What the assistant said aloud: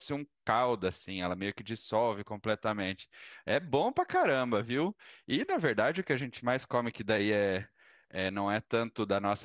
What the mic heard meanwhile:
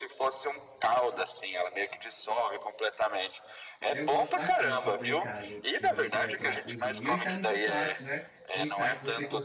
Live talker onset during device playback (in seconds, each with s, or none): 3.9 s